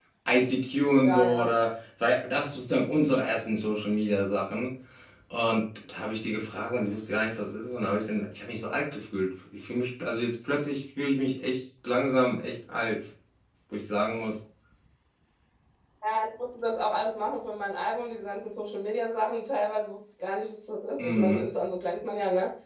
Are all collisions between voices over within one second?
Yes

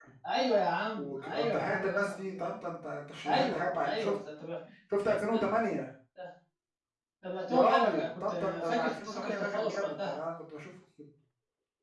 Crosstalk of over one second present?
Yes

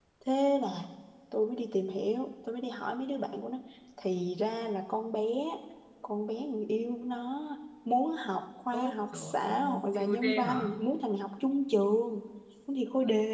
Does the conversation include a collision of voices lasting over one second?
Yes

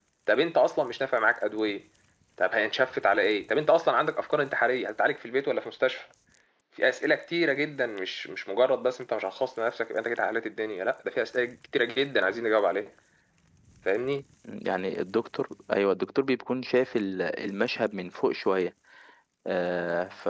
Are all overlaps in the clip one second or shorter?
Yes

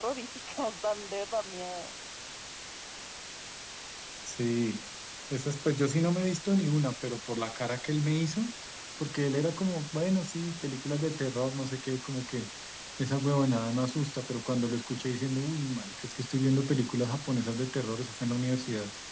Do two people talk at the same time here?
No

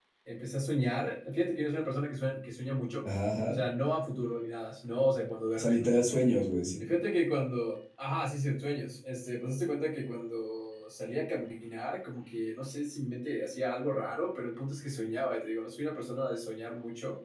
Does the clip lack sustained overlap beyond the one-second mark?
Yes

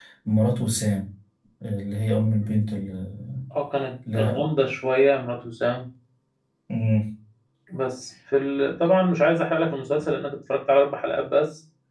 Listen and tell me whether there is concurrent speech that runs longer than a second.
No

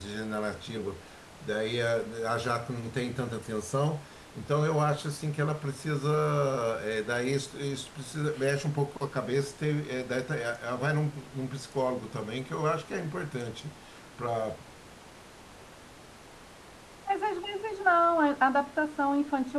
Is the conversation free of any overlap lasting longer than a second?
Yes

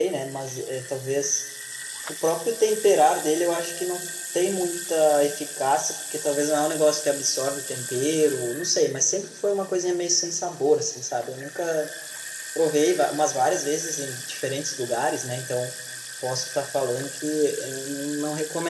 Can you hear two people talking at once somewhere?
No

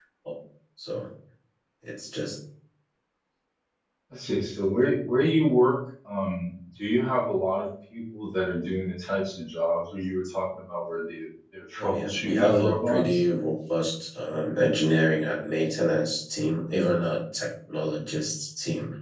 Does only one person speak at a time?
No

